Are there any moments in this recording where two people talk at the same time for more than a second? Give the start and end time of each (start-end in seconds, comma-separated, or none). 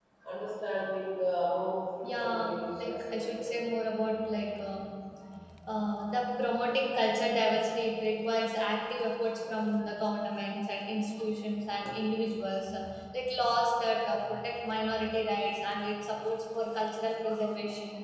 2.0-3.5